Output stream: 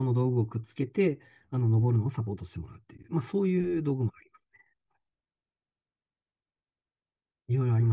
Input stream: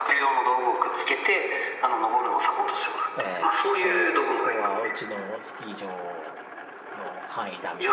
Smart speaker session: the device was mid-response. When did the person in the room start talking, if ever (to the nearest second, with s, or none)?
3 s